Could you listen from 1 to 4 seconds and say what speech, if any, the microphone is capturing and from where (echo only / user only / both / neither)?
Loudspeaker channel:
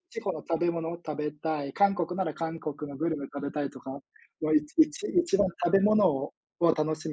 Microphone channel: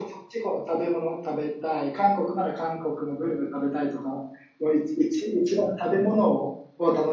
echo only